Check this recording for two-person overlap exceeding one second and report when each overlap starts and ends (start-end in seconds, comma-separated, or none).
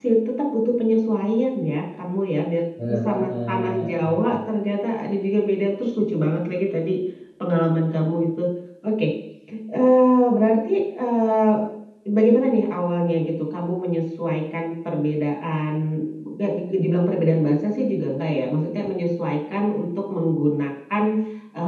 2.8-4.4